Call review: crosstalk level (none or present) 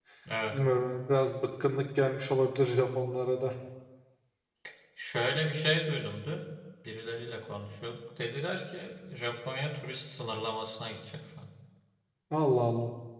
none